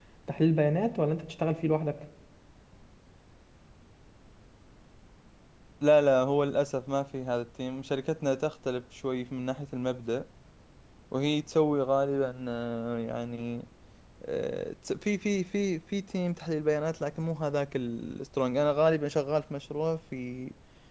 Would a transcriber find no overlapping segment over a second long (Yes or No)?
Yes